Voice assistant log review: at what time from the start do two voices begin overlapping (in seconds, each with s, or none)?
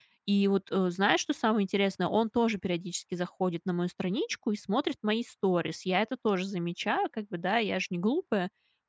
none